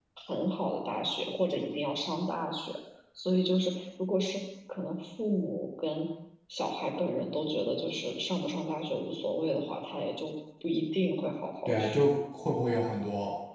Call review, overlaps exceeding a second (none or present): none